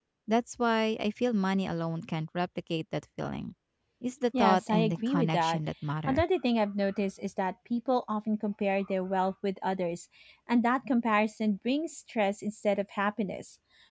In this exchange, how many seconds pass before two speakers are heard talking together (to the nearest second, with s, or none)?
4 s